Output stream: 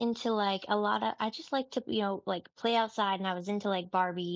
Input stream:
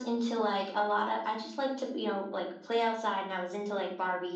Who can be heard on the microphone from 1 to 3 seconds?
echo only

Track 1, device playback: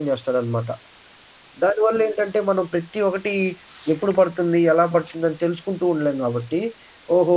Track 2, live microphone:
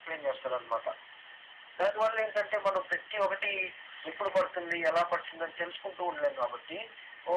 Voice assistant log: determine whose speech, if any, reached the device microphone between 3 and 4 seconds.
echo only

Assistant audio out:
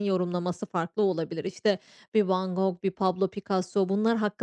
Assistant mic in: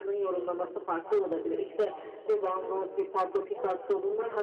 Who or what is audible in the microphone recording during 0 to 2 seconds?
both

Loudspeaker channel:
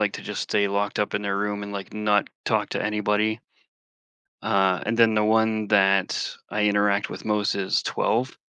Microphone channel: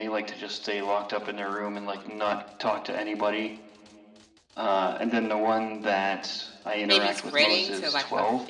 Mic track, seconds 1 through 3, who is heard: echo only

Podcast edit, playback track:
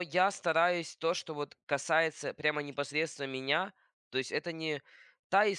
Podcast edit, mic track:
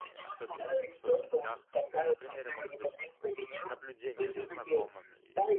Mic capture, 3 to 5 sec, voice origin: both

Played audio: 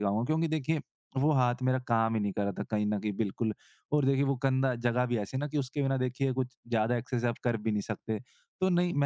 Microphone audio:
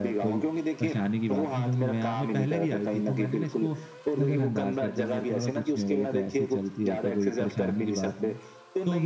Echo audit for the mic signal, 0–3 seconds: both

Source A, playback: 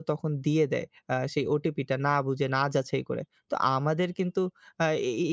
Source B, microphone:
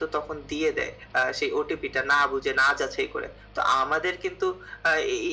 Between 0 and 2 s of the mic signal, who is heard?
echo only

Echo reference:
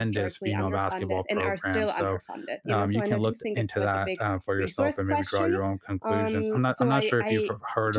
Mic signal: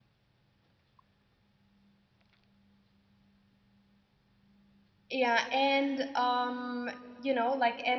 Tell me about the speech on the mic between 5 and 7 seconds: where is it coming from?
user only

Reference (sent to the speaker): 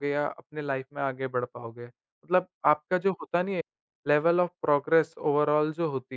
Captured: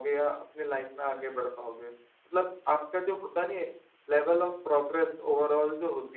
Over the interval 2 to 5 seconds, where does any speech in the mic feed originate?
echo only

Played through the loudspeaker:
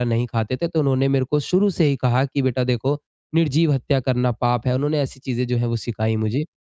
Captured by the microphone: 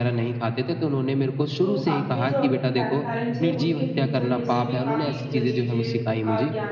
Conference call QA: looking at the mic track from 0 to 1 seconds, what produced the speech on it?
echo only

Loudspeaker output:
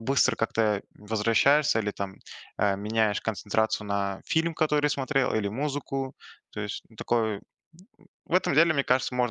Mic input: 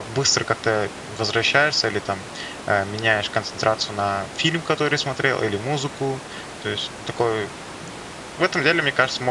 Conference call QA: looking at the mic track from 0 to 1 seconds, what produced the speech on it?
echo only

